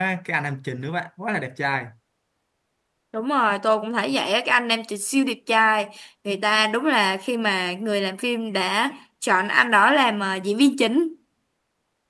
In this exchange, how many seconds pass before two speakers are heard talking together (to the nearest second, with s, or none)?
none